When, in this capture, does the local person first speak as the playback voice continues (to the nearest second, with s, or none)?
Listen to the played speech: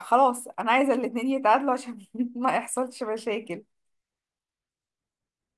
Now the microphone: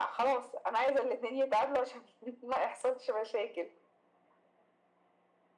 none